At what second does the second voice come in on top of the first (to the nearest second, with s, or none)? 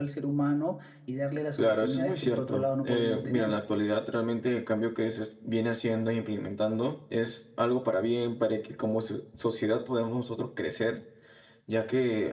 2 s